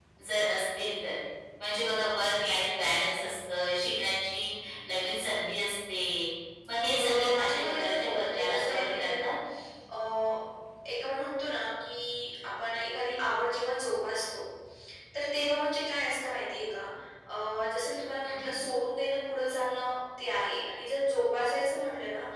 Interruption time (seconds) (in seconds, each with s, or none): 6.9 s